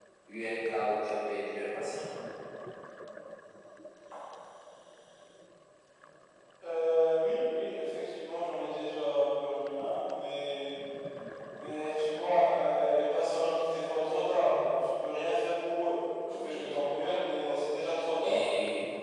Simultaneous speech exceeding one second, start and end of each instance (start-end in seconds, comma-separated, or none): 16.3-17.6